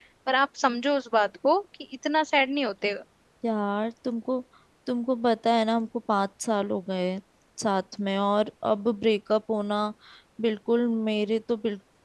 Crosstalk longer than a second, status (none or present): none